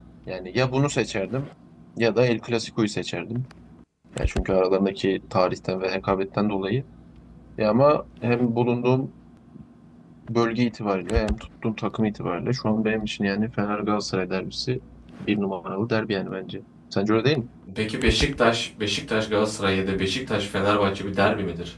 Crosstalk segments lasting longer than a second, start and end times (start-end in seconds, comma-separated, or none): none